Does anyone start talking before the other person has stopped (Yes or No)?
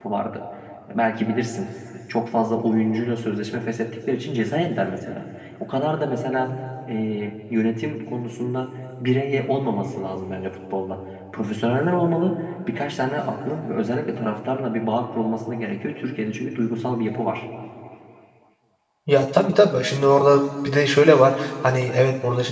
No